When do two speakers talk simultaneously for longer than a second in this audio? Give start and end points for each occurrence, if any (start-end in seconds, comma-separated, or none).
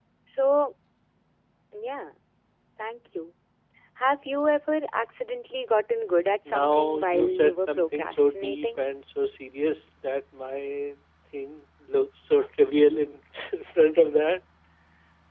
6.4-8.8